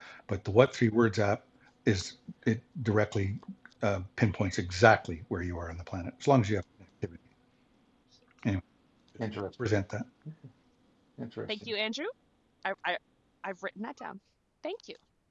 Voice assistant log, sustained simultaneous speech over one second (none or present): none